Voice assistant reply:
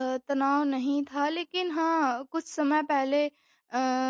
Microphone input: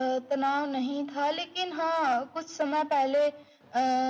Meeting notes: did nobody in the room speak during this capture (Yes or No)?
Yes